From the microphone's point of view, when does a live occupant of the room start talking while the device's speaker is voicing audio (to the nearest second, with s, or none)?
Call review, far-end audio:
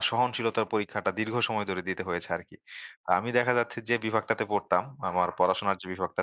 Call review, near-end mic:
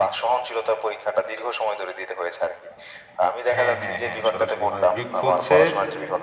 4 s